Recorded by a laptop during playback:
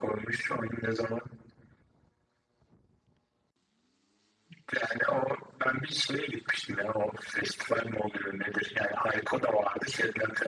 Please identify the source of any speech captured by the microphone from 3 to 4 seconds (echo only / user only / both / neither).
neither